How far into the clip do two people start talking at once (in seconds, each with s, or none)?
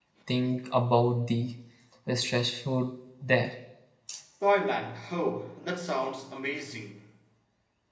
none